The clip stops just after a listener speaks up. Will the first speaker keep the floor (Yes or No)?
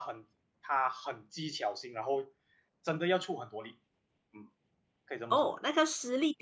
No